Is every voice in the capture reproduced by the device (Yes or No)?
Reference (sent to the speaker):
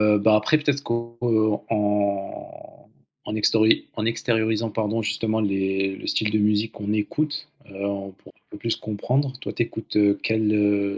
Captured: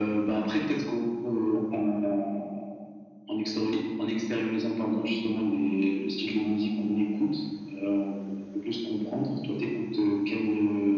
Yes